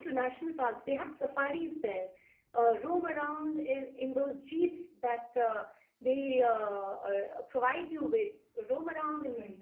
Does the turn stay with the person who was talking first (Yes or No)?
No